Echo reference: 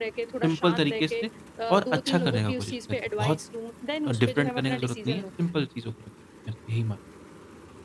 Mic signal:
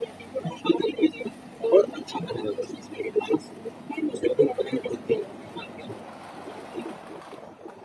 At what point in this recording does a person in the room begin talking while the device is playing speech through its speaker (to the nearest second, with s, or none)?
none